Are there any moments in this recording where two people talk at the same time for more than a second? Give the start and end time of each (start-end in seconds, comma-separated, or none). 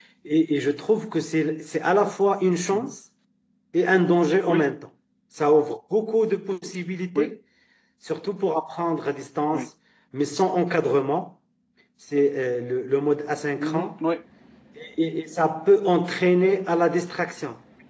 none